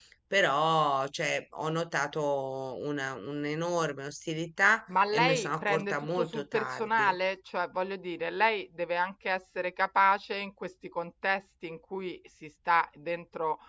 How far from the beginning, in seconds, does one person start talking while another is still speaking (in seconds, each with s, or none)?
4.9 s